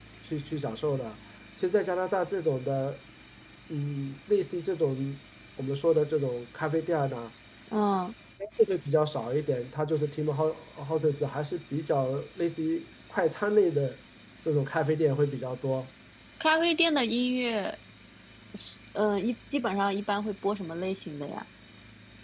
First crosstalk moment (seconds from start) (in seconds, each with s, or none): none